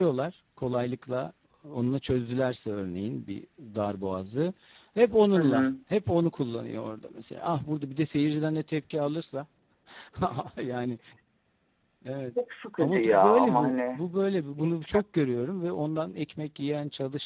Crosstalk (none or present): present